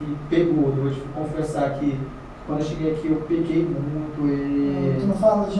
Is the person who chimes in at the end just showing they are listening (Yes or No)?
No